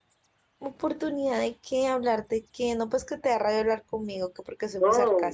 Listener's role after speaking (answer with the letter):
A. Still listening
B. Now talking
B